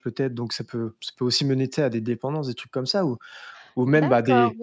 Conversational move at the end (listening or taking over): taking over